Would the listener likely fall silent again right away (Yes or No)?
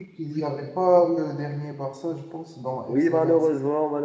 No